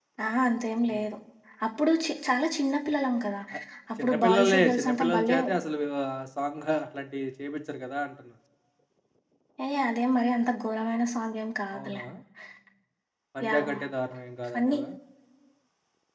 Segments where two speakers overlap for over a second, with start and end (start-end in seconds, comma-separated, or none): 4.0-5.4